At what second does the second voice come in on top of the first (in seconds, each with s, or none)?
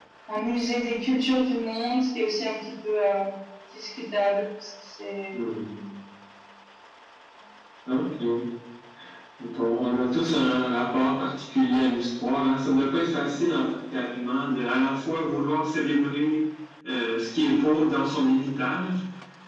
none